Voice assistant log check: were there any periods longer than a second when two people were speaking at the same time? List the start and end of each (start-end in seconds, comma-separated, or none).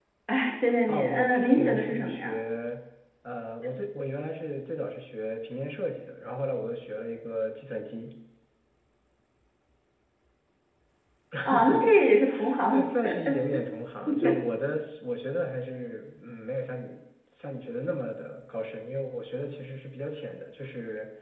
0.9-2.3